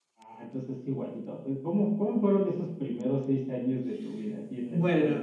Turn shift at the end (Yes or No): Yes